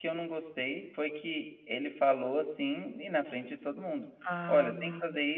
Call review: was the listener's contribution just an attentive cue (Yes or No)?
Yes